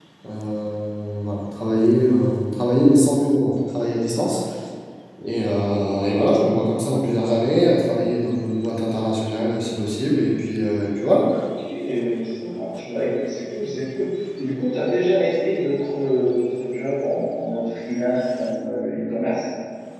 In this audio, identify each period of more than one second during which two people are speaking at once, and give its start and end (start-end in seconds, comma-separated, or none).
none